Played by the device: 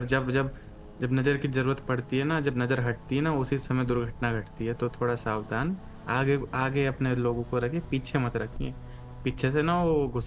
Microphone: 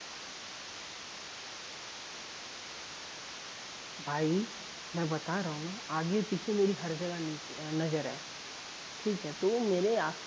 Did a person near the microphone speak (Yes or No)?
Yes